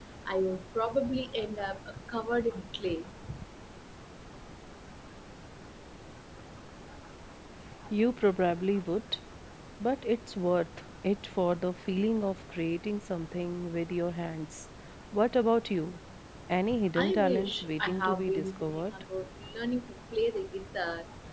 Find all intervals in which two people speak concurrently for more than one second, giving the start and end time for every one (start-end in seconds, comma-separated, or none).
17.0-18.9